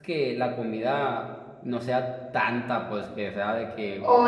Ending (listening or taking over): taking over